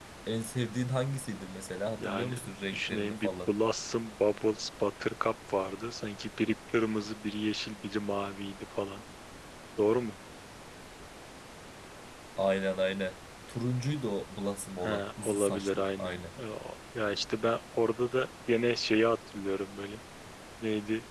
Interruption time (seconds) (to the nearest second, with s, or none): 2 s